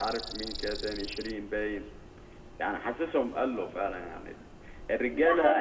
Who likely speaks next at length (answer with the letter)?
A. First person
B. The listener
B